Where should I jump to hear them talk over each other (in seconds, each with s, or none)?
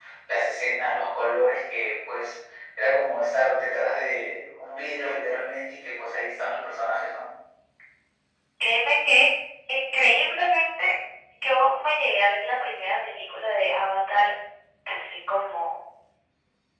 none